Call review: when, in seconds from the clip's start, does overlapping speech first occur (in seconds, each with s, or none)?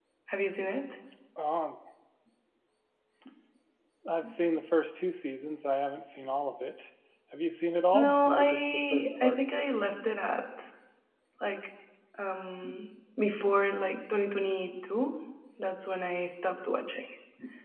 7.9 s